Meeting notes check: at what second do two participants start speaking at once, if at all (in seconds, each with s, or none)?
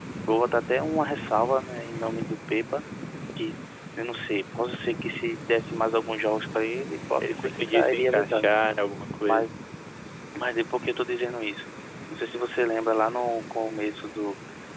7.2 s